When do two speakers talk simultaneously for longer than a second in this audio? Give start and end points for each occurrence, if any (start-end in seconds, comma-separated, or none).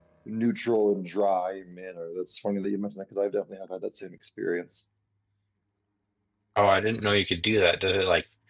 none